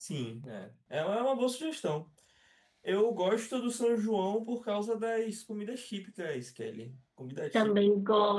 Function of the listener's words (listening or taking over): taking over